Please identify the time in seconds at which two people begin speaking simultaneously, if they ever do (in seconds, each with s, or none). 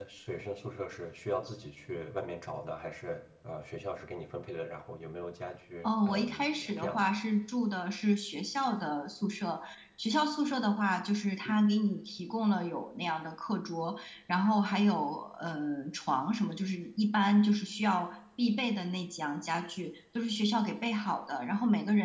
5.8 s